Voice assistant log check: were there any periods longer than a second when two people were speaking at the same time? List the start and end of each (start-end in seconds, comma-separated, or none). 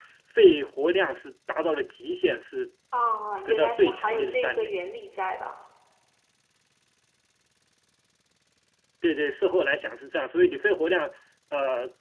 3.5-4.7